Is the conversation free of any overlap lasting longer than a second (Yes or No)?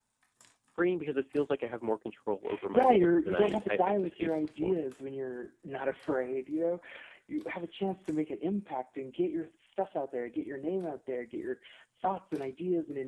No